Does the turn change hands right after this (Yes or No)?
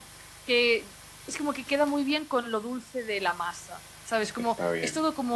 No